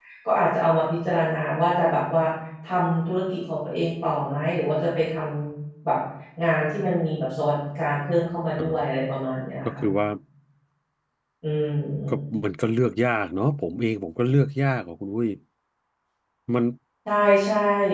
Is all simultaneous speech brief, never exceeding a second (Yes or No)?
Yes